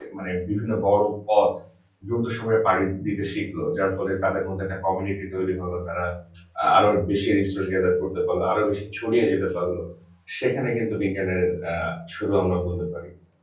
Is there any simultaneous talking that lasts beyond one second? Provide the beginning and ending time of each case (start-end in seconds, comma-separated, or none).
none